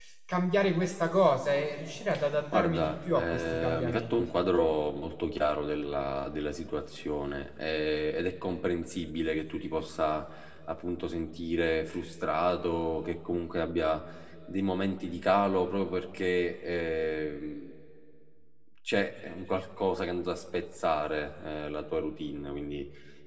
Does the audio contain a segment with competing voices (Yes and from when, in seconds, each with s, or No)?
Yes, from 2.5 s